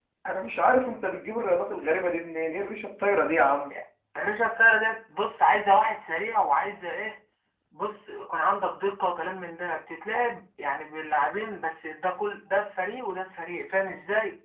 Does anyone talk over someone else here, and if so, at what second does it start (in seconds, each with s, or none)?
none